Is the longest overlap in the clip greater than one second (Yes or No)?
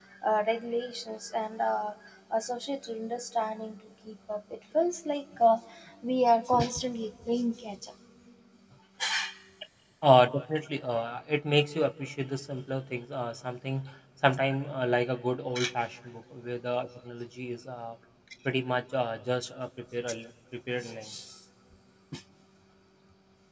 No